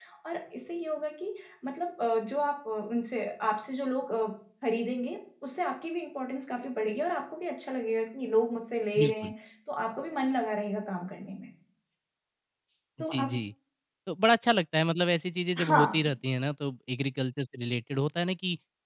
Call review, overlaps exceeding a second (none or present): none